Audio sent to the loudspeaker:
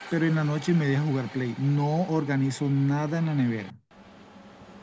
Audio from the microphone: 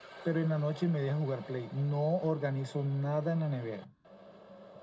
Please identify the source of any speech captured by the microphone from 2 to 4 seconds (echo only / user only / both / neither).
echo only